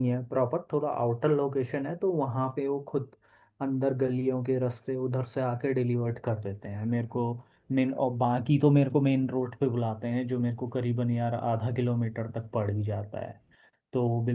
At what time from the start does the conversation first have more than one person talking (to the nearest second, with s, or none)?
none